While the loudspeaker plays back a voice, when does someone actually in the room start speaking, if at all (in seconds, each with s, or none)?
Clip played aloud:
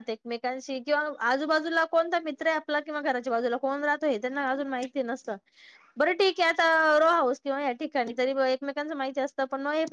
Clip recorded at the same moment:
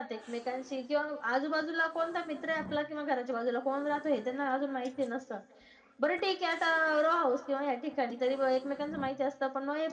none